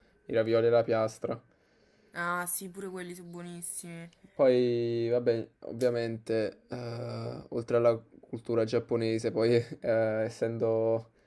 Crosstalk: none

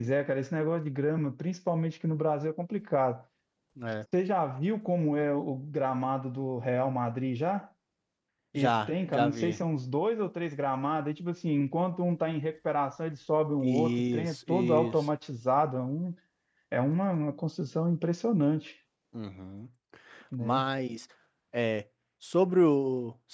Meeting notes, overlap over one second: present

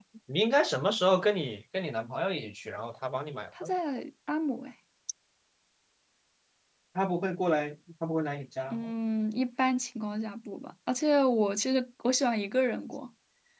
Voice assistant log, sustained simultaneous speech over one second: none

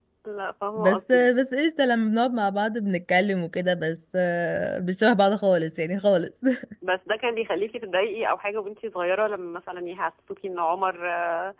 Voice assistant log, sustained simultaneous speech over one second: none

